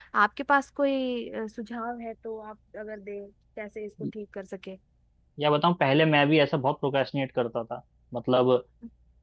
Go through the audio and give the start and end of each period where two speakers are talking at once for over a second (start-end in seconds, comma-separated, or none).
none